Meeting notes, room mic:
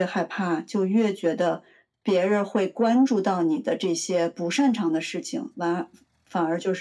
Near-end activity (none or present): none